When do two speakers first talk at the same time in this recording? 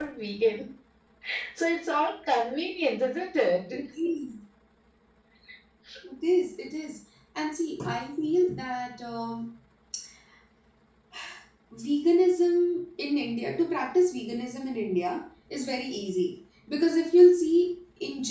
none

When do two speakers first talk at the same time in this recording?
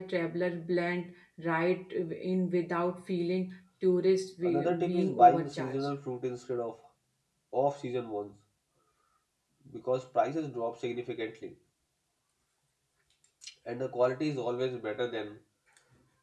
4.4 s

